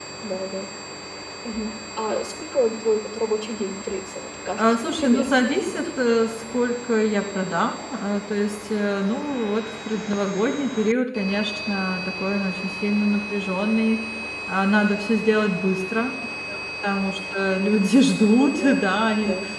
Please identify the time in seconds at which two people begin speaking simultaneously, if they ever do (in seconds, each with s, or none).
4.6 s